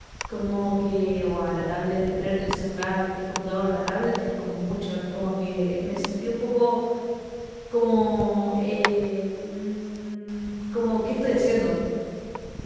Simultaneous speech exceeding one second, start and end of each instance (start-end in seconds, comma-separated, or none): none